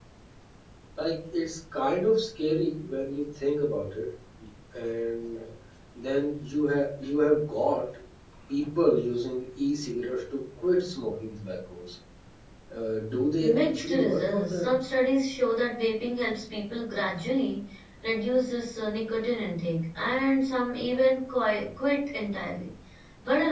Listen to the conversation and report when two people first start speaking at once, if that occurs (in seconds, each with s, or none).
13.4 s